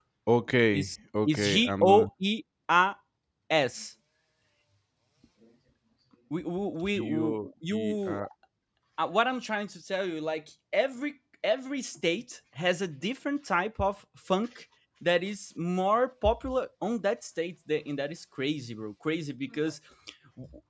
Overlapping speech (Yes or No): Yes